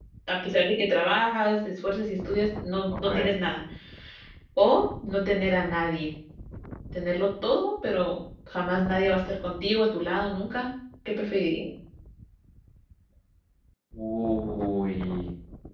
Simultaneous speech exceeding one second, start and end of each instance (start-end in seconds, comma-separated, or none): none